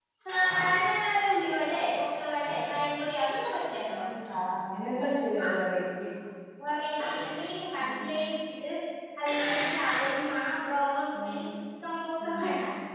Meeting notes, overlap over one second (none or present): none